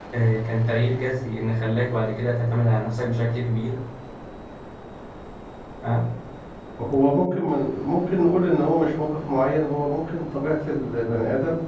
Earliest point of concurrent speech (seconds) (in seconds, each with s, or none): none